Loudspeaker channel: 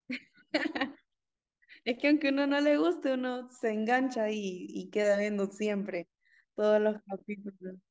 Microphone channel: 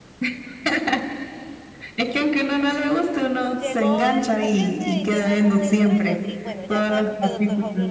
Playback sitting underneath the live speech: No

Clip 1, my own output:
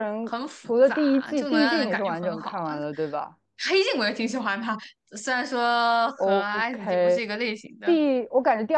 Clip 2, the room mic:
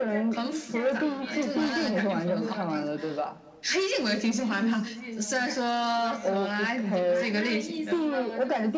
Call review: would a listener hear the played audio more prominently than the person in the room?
Yes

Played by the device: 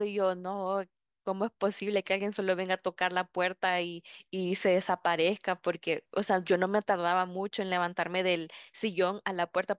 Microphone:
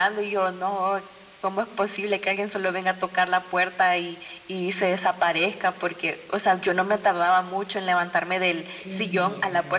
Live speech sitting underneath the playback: Yes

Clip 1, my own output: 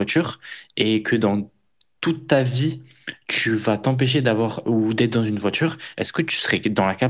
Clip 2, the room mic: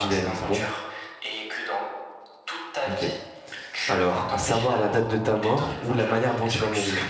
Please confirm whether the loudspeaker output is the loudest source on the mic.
No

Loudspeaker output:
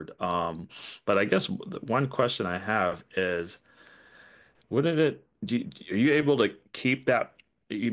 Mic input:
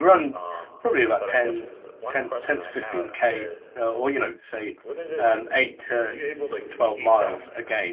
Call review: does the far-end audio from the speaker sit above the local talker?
No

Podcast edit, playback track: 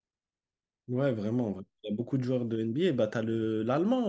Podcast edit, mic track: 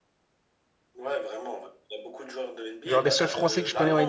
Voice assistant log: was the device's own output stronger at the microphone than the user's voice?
No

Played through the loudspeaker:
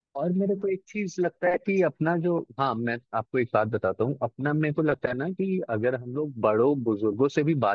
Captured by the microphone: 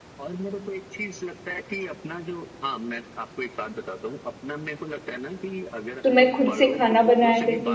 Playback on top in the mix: No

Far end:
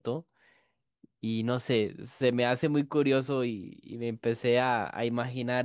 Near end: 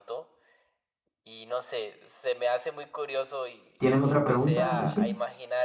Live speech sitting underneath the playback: No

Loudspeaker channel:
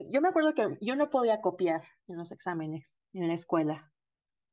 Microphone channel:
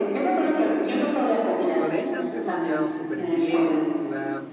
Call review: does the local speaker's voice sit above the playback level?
No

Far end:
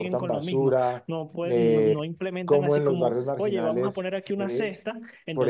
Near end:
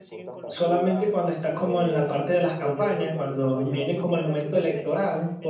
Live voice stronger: Yes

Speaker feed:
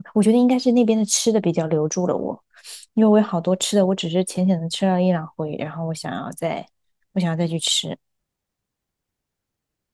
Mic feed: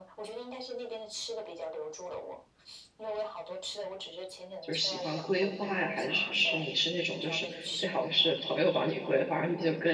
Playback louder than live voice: No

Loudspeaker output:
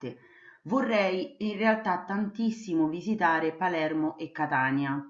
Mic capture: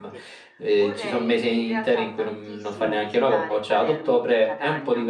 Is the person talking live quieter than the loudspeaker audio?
No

